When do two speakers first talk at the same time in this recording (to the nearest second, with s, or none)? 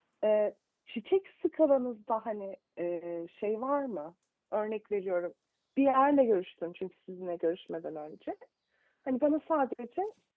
none